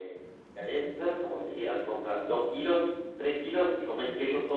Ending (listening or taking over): listening